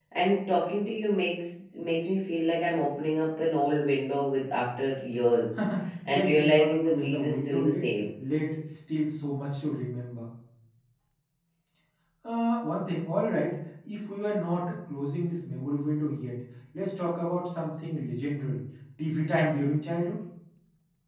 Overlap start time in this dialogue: 6.0 s

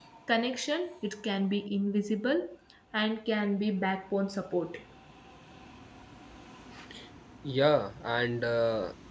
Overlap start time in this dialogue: none

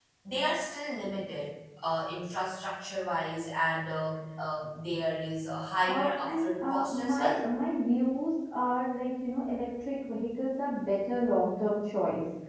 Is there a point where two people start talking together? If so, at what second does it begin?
5.9 s

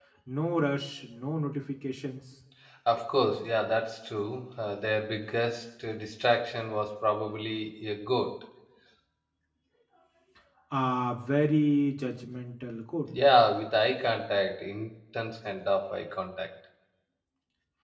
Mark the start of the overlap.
none

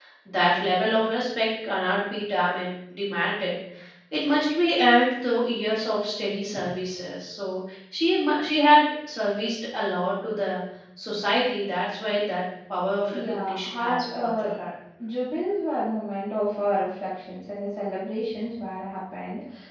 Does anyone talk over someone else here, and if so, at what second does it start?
13.1 s

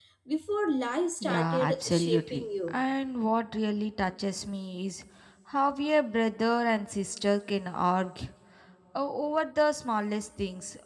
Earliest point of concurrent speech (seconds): 1.2 s

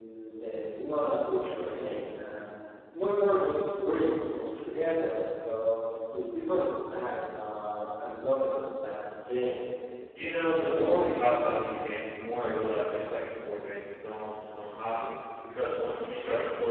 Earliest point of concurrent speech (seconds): none

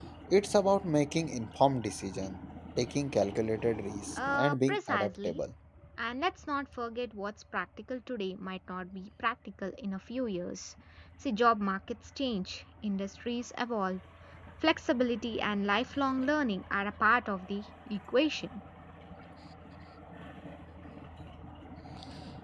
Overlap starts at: 4.2 s

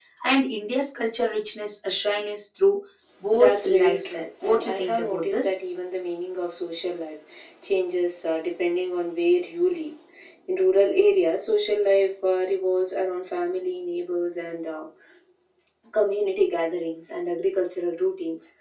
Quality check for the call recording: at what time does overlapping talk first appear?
3.3 s

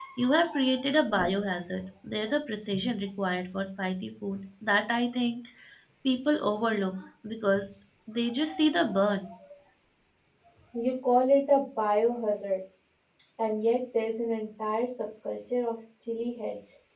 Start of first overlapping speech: none

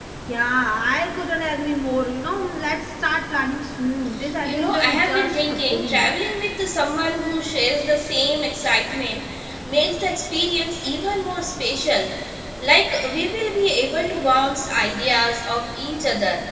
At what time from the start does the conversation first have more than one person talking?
4.2 s

